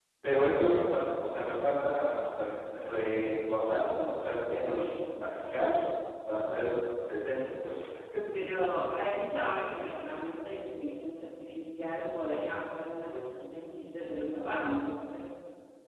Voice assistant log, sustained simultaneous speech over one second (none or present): none